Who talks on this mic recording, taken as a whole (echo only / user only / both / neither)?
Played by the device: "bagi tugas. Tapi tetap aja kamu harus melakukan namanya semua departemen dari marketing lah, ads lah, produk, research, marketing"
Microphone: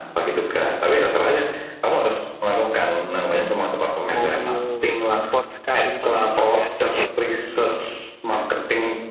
both